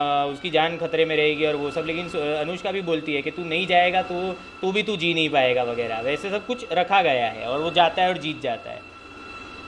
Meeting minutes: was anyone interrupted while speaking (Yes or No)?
No